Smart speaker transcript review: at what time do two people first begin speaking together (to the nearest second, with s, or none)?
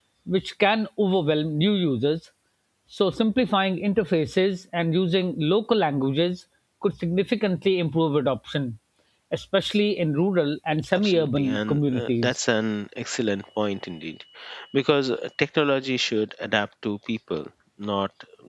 11 s